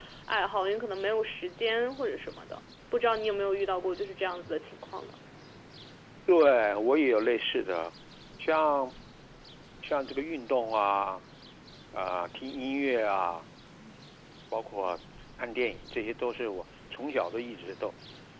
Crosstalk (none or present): none